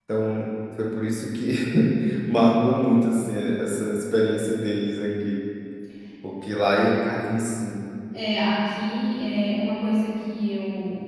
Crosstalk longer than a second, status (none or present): none